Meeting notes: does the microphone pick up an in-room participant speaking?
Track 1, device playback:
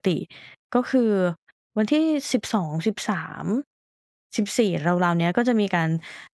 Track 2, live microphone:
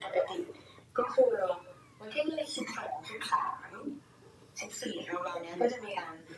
No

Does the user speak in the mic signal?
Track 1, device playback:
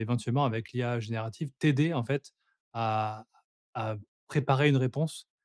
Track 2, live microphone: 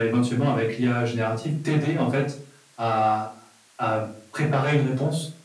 No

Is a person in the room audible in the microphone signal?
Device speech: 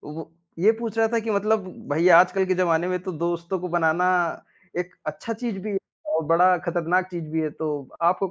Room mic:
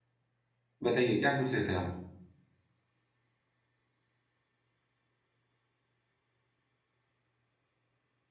Yes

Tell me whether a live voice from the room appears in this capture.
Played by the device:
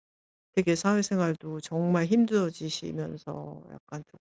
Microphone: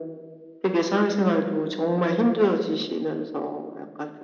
No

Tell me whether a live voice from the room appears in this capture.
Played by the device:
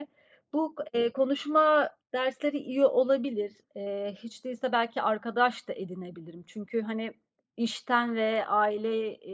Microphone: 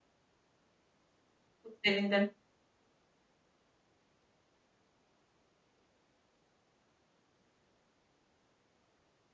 Yes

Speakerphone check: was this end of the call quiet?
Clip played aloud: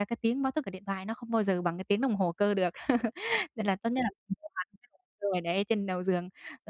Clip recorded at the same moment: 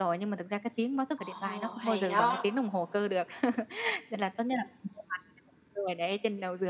No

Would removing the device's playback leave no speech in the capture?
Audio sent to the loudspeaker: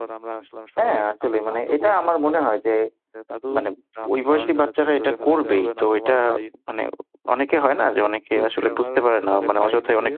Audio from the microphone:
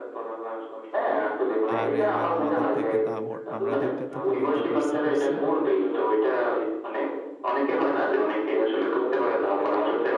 No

